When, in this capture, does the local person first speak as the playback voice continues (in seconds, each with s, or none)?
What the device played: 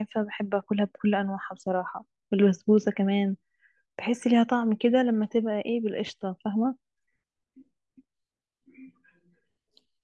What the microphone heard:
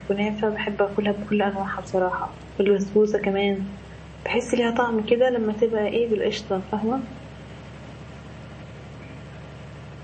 none